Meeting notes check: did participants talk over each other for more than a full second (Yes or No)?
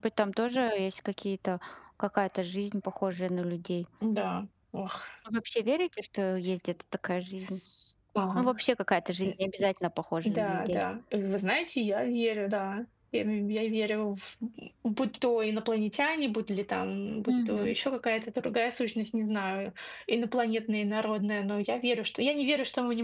No